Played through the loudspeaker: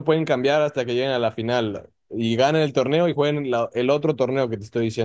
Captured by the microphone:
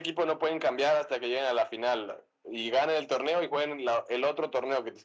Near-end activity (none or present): none